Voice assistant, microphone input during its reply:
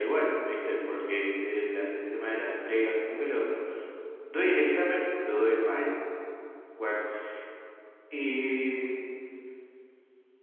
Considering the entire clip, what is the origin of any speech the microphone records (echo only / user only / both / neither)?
echo only